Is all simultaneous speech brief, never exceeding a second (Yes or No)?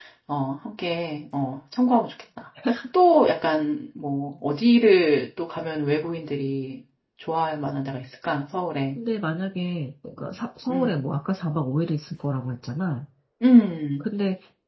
Yes